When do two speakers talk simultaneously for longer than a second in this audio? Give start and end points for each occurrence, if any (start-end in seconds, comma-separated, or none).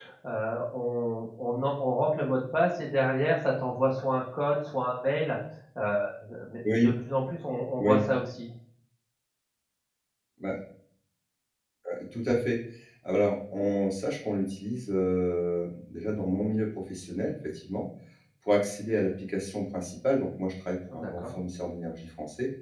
none